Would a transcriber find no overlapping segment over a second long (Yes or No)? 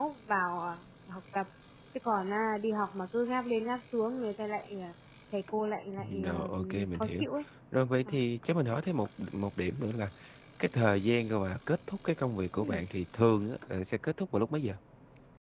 No